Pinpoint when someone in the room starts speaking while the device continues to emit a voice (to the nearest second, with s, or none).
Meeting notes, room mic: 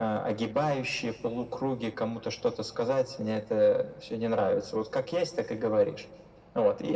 none